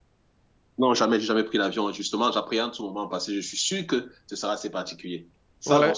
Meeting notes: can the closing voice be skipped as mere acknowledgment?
No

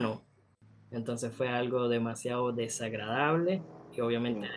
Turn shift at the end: No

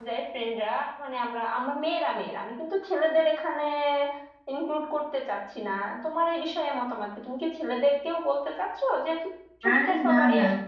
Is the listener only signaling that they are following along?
No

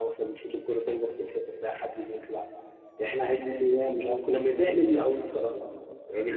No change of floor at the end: No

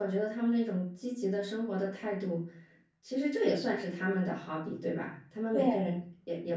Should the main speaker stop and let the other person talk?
No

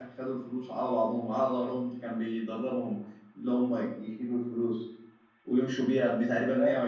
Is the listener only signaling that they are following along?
Yes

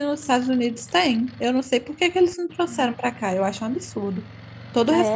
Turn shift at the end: Yes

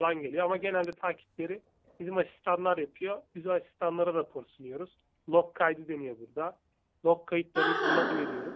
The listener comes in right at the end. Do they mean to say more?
No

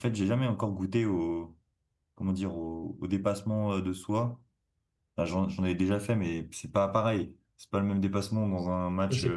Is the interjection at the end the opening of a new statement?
Yes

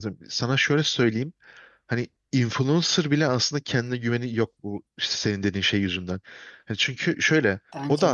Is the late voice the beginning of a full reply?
No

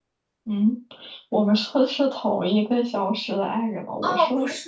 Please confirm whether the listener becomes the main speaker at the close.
Yes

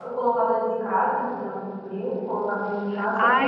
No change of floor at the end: No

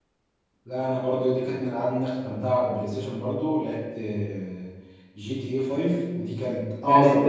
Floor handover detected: No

